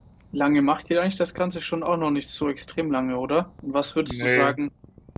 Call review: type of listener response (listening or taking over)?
listening